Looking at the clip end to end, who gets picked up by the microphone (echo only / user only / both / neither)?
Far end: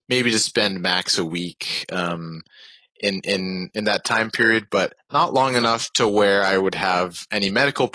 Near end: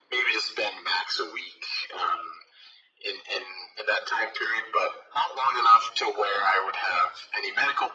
echo only